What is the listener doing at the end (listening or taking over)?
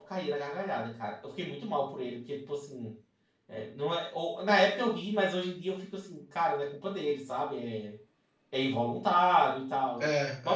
listening